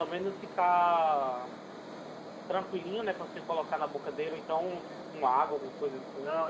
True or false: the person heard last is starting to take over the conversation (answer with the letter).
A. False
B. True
B